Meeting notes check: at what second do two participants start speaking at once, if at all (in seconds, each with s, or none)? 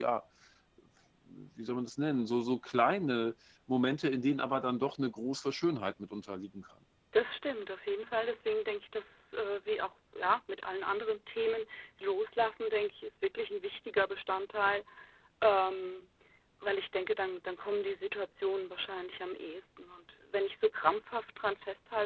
none